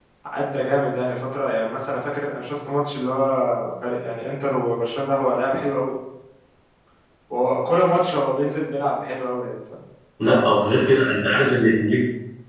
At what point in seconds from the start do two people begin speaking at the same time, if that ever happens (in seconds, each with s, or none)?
none